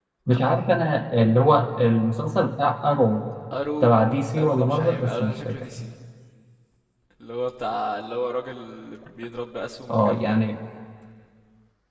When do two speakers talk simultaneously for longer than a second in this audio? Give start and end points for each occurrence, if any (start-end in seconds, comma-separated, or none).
4.4-5.6